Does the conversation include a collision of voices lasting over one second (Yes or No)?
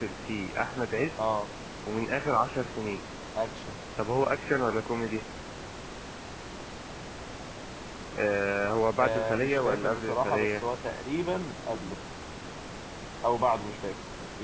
Yes